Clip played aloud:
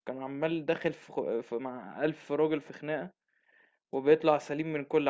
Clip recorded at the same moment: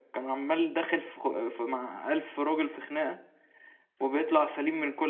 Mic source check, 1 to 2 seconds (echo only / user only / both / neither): echo only